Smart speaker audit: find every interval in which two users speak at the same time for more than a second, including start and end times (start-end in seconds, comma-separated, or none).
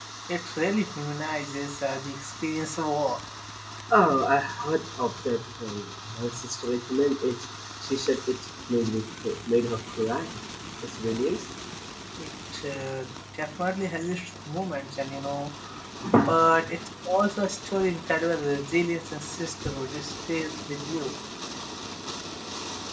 none